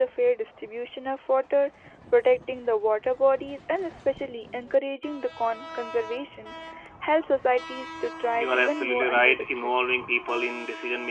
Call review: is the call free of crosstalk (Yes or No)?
No